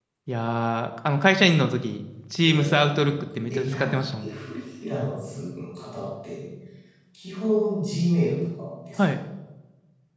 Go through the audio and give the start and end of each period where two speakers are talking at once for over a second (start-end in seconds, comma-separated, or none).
2.4-4.3